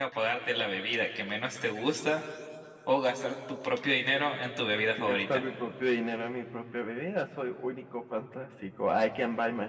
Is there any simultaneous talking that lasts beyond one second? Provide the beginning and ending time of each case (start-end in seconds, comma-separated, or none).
none